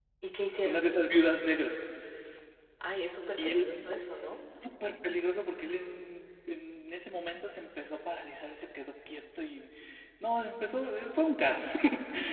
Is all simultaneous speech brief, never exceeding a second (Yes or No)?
Yes